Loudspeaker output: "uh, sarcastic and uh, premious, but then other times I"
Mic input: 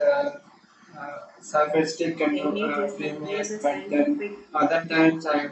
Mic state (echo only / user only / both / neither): both